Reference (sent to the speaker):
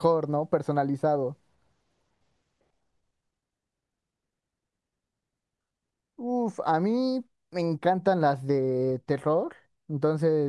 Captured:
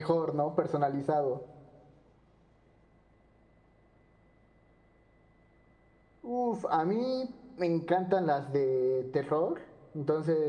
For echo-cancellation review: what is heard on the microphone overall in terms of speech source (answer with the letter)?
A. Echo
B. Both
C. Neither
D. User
A